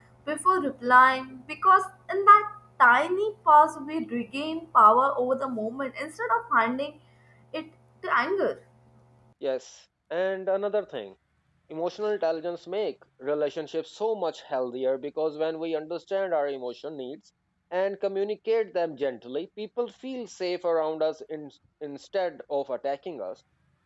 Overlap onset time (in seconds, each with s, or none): none